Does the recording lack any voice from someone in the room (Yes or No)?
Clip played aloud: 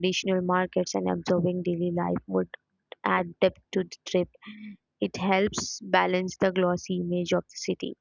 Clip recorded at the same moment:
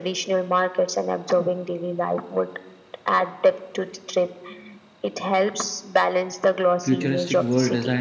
No